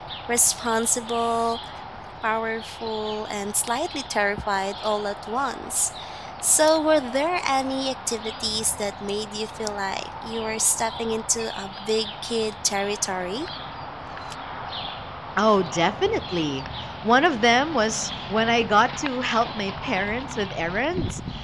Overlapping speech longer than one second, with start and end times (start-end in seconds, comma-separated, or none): none